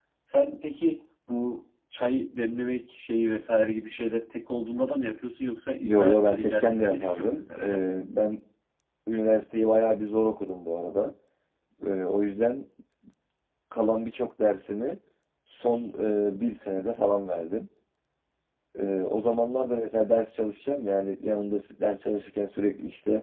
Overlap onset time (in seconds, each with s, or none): 5.8 s